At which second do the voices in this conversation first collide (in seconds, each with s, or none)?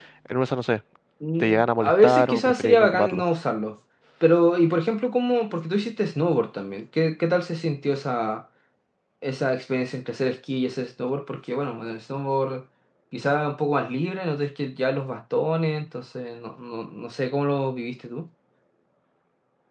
1.4 s